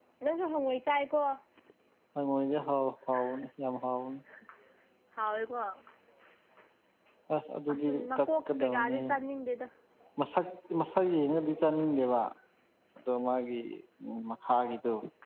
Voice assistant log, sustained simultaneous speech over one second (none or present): present